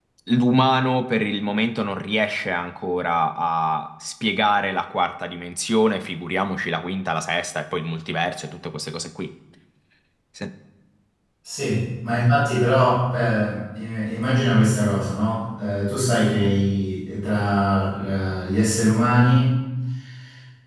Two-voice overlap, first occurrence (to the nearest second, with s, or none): none